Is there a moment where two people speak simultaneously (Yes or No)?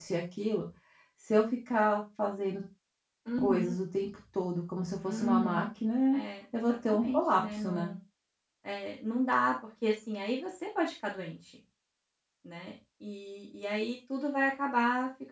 Yes